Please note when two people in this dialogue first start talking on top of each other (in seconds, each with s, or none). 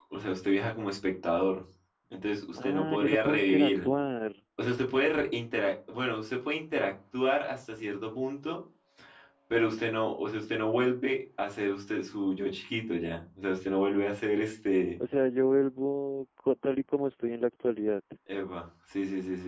2.6 s